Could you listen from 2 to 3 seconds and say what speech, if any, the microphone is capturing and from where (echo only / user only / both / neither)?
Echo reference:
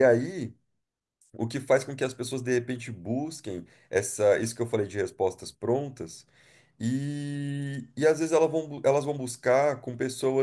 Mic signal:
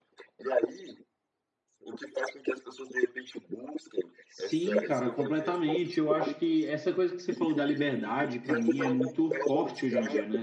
echo only